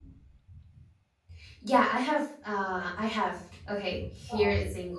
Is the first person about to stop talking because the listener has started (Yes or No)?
No